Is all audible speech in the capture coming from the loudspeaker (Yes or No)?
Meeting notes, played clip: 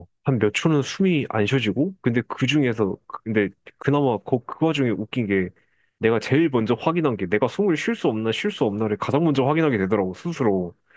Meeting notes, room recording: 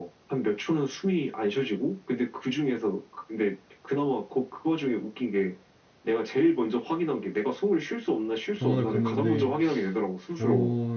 No